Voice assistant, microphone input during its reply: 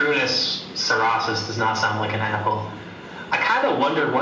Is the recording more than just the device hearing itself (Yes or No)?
No